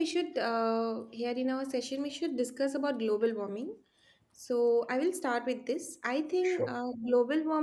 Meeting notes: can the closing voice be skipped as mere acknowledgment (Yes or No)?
Yes